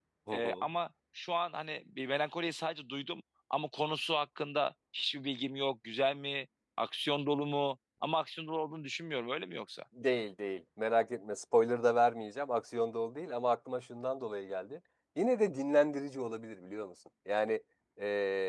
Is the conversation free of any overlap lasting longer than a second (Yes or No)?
Yes